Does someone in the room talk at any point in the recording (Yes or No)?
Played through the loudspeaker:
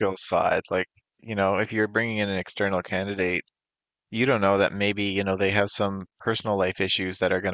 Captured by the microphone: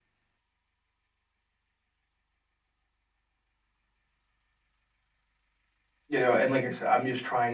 Yes